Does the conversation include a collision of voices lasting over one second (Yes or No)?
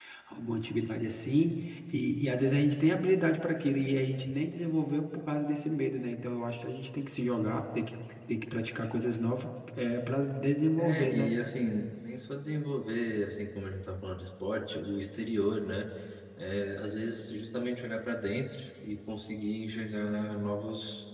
No